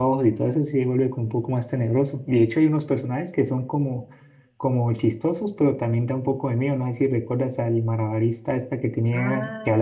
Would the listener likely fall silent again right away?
No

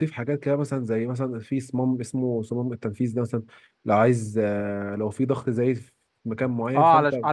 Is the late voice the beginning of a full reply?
Yes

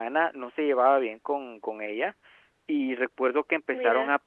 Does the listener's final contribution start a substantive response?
No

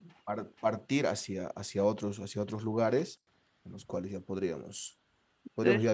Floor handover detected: No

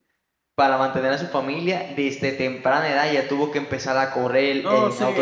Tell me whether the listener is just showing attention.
No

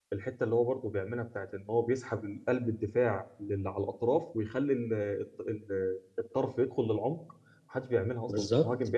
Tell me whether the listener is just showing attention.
No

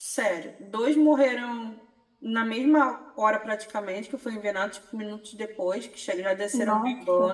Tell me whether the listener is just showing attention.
Yes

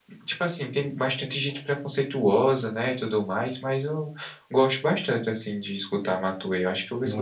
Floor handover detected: Yes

